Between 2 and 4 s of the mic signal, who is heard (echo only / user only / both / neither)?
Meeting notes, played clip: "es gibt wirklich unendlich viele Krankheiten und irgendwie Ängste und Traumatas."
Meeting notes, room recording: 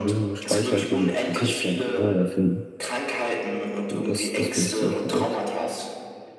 both